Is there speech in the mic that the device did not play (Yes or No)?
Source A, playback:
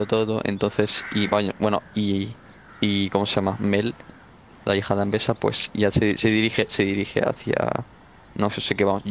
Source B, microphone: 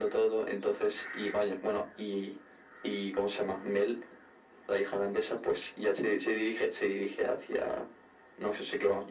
No